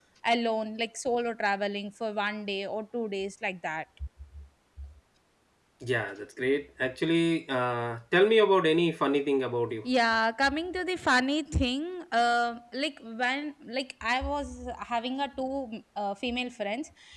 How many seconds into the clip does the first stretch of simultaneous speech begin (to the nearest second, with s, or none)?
none